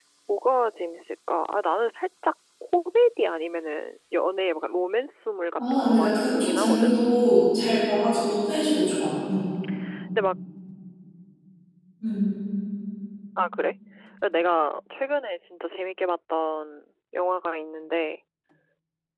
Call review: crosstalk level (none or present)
present